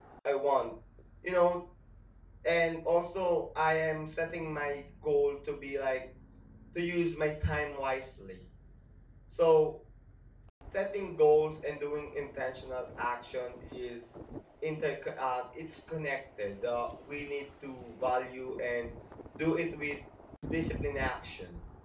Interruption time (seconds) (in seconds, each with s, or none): none